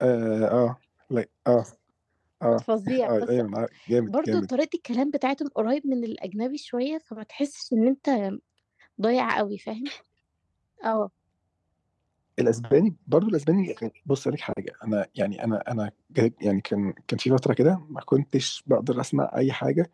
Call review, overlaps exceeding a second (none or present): none